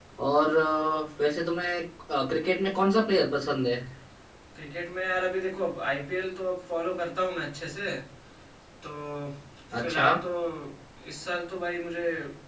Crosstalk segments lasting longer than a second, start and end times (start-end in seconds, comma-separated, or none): none